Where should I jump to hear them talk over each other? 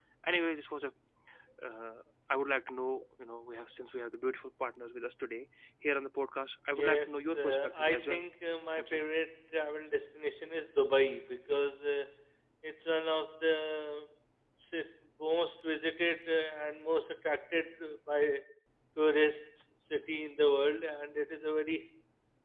6.7 s

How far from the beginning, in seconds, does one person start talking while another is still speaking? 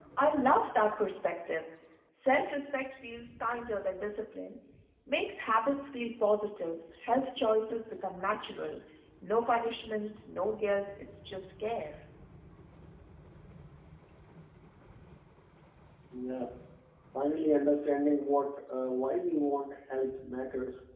none

